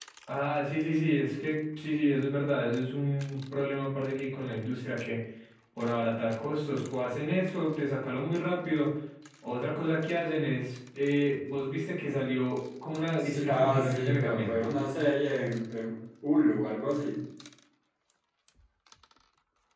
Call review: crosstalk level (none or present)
present